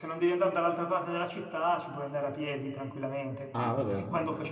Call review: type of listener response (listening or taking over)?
listening